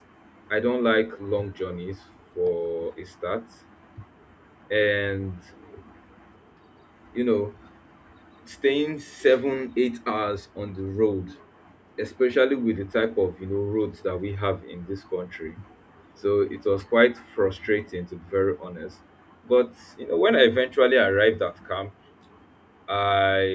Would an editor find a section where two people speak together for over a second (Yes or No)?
No